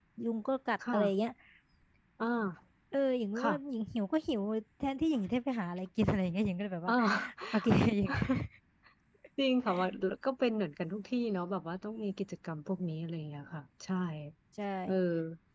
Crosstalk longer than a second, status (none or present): none